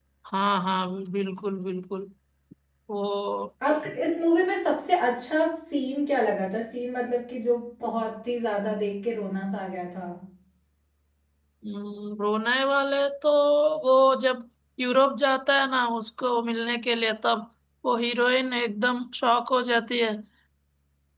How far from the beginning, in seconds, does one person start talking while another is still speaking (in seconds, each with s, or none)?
none